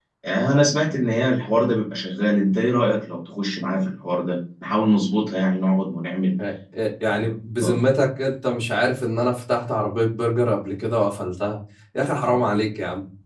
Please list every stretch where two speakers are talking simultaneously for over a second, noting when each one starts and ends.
none

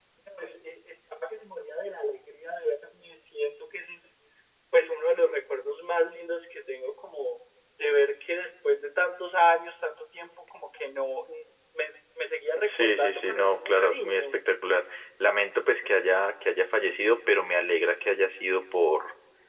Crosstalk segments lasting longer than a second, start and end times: 12.6-14.2

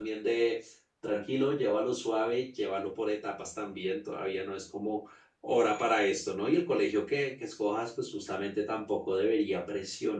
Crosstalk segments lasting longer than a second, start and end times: none

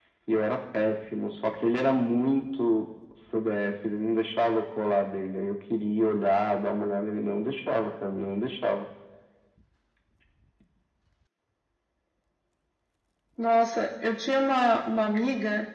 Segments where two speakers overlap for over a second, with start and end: none

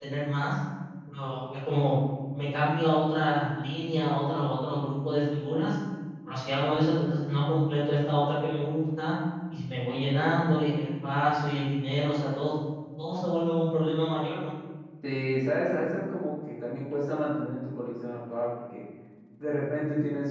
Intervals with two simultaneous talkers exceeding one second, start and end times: none

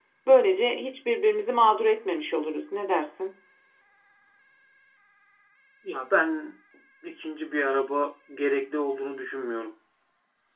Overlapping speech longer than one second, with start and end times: none

